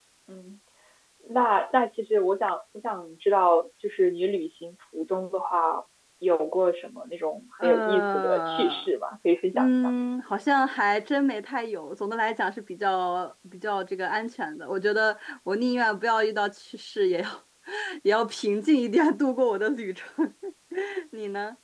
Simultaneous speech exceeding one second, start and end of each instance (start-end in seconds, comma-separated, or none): 7.6-8.9